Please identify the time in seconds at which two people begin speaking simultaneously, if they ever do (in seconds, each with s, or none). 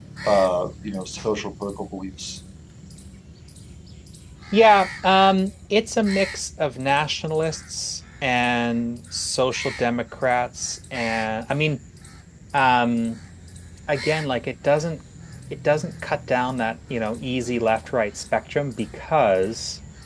none